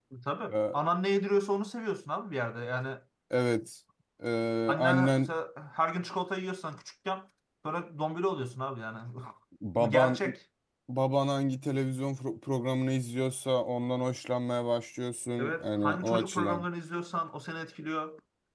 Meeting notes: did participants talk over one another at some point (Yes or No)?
Yes